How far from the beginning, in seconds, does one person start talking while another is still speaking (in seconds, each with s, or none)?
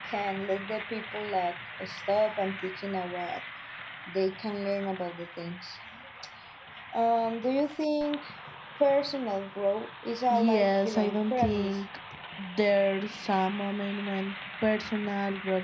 10.3 s